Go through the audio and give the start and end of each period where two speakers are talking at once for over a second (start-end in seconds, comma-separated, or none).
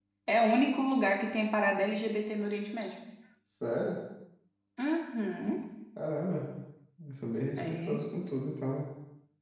none